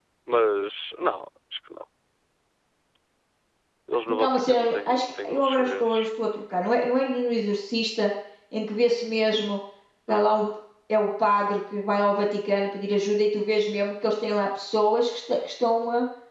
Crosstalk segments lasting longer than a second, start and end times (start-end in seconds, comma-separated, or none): 4.1-6.1